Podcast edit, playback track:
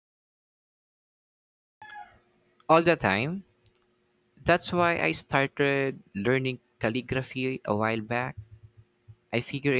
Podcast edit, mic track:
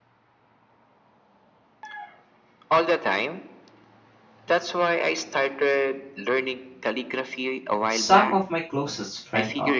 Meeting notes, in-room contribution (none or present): present